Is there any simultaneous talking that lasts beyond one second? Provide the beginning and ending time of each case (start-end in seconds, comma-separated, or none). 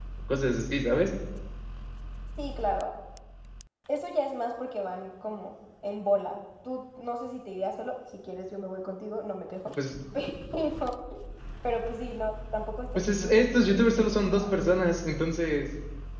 12.9-14.5